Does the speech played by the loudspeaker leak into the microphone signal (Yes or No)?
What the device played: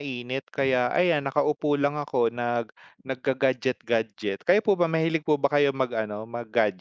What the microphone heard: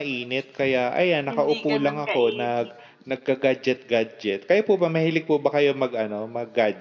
Yes